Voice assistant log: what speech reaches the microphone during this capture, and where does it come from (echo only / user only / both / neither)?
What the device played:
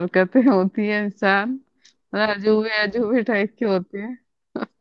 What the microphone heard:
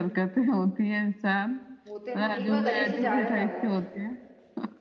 both